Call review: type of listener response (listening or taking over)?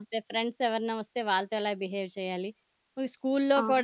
listening